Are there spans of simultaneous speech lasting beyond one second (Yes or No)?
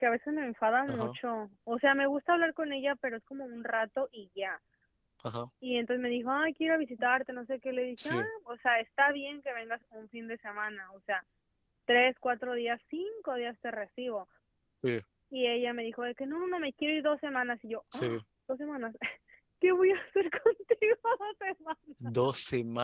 No